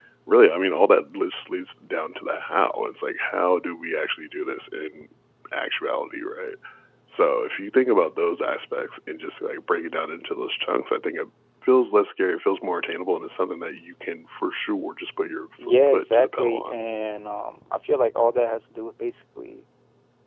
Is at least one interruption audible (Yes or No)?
Yes